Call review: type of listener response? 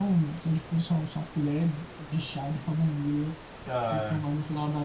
listening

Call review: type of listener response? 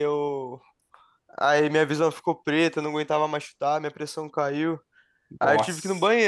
listening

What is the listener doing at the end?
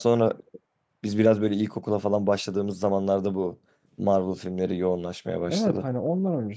taking over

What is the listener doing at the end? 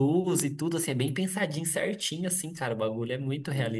taking over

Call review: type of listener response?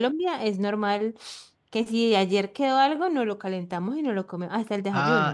taking over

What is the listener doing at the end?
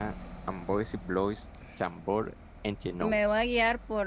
taking over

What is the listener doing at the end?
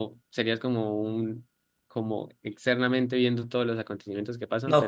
taking over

